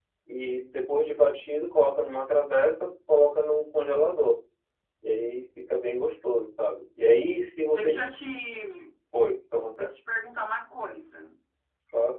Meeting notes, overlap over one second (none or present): none